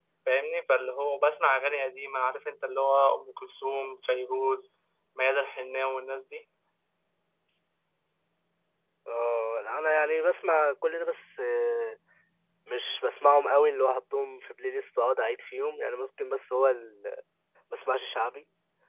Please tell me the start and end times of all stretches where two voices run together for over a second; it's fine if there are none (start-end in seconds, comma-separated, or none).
none